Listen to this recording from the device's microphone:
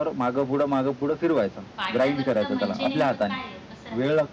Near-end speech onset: 1.8 s

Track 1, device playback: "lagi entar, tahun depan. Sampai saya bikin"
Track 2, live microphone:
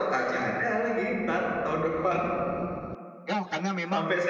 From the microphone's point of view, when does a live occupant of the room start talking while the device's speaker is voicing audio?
3.3 s

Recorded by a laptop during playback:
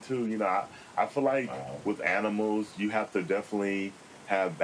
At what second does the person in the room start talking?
1.5 s

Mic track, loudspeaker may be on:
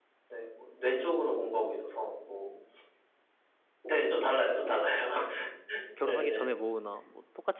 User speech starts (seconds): 6.0 s

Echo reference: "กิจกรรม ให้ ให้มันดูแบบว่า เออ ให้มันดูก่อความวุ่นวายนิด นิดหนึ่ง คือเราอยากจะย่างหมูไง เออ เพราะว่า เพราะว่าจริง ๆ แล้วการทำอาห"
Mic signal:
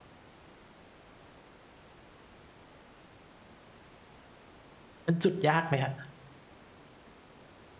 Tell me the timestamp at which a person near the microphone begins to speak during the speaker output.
5.0 s

